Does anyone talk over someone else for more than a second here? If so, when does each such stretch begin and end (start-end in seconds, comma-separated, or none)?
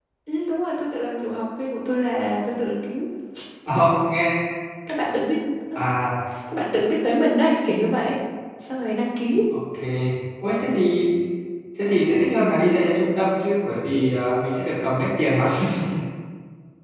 none